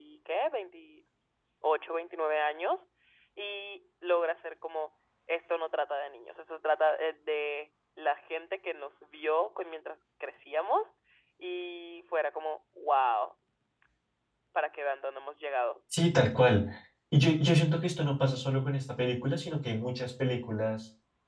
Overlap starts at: none

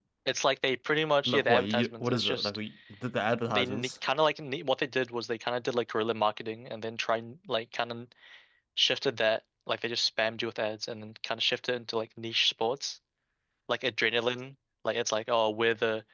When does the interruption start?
1.3 s

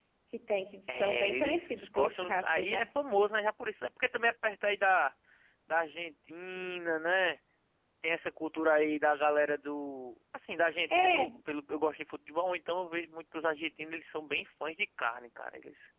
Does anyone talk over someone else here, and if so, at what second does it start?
0.9 s

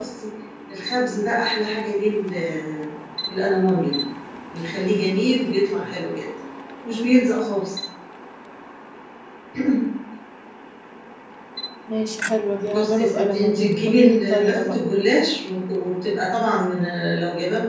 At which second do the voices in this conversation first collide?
12.6 s

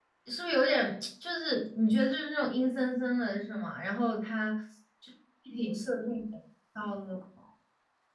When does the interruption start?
none

